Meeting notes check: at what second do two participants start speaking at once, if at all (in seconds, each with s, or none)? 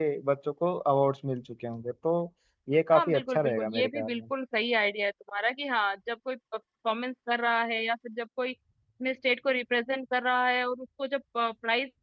2.9 s